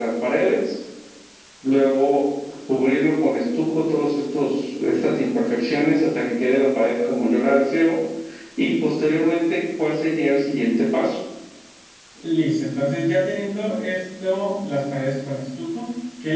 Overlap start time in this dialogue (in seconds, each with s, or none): none